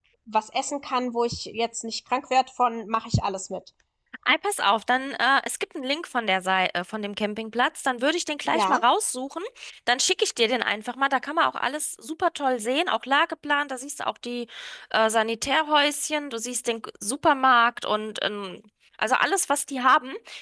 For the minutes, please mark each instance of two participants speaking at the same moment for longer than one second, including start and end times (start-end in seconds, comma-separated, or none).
none